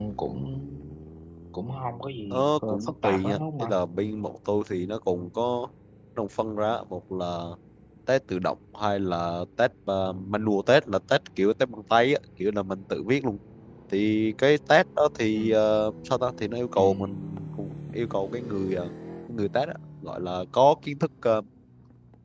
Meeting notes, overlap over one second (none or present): present